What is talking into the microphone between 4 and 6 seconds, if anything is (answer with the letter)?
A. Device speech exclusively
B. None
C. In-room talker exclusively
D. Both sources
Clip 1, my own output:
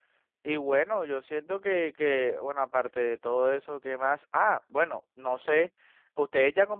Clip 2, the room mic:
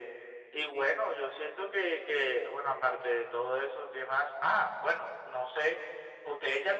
A